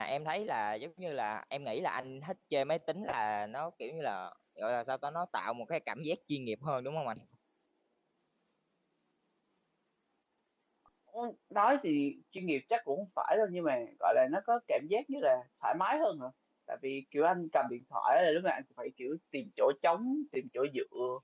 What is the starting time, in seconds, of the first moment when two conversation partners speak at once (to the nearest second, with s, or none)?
none